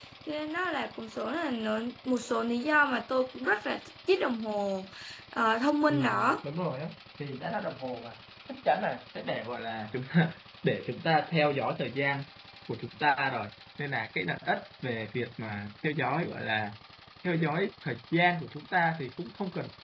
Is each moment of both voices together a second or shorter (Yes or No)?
Yes